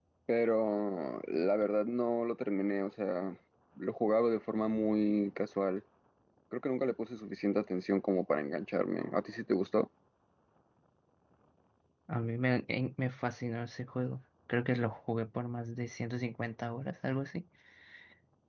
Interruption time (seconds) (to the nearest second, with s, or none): none